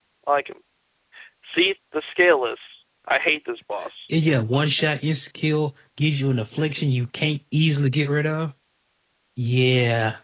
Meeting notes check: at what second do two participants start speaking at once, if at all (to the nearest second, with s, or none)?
none